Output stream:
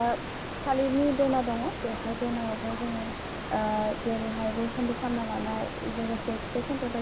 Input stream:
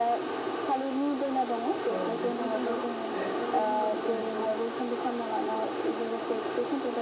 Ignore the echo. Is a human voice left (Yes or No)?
Yes